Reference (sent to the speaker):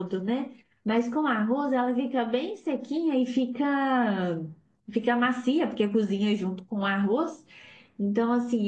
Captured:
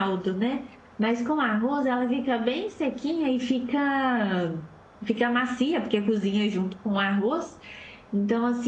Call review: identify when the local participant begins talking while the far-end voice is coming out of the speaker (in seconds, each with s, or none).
none